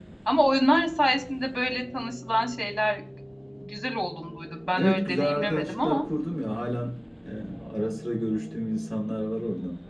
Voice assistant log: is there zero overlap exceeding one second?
No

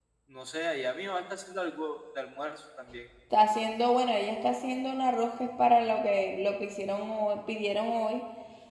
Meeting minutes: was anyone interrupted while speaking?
No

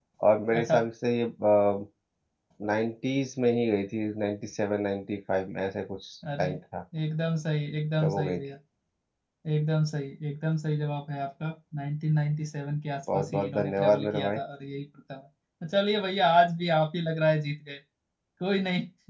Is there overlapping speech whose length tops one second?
Yes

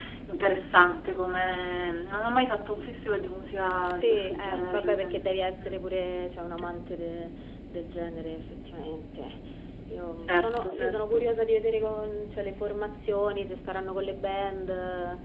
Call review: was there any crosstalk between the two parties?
Yes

